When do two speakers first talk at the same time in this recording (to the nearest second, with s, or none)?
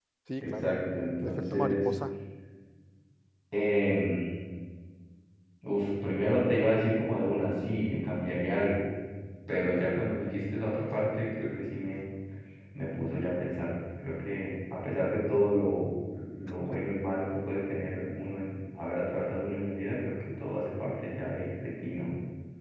1 s